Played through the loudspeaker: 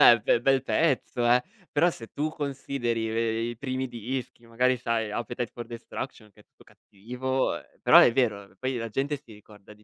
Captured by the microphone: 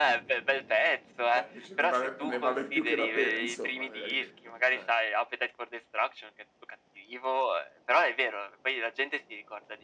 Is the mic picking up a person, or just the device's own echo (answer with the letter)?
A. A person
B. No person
A